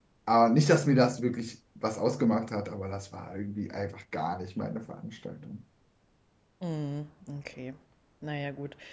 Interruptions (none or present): none